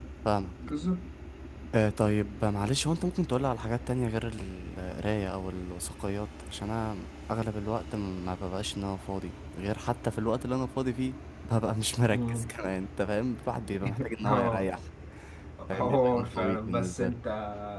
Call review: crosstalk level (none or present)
present